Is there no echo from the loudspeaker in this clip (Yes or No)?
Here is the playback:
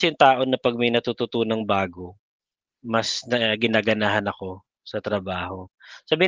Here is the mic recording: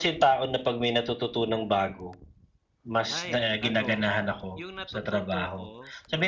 No